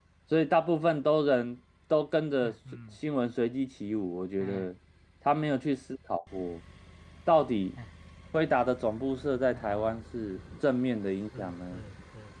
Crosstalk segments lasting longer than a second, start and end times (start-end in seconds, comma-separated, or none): none